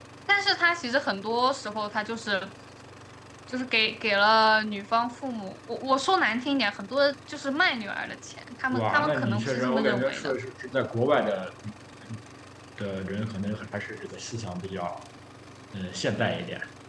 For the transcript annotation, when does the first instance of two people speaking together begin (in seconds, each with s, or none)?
8.7 s